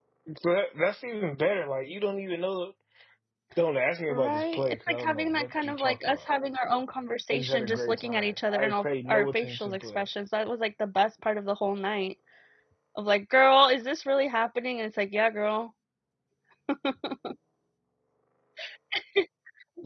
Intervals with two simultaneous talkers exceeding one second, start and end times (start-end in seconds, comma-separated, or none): 4.1-6.3, 7.3-10.0